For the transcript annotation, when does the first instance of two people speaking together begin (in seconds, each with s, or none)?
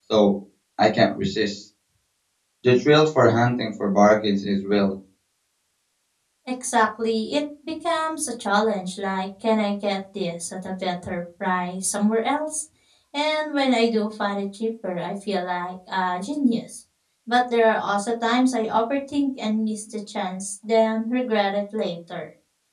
none